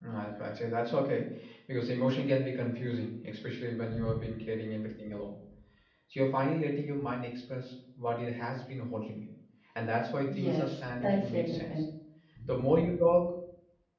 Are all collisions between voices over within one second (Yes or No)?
No